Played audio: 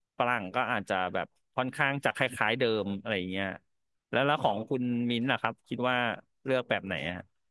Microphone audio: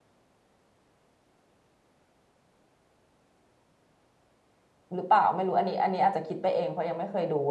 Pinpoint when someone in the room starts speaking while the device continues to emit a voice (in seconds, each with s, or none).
4.9 s